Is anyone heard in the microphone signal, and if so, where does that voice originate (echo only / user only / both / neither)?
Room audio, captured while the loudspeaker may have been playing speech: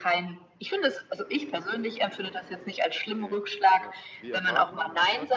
both